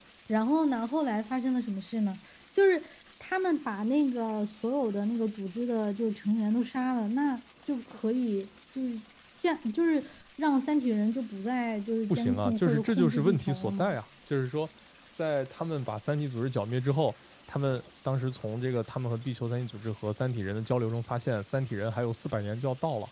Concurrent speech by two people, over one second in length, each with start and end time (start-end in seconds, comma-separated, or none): 12.1-14.0